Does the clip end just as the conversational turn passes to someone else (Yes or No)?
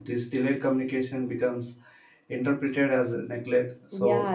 Yes